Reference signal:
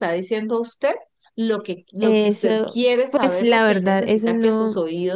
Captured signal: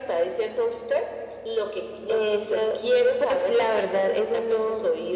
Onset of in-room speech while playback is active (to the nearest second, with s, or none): none